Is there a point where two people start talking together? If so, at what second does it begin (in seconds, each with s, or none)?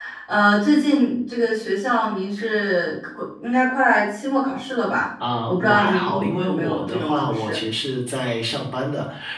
5.5 s